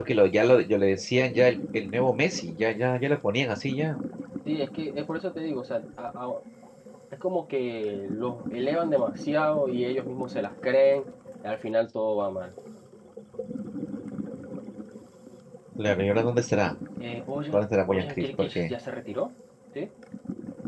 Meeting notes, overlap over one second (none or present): present